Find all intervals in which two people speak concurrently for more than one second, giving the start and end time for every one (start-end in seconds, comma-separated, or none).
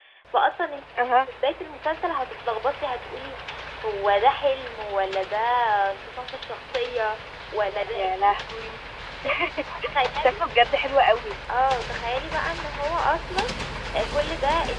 none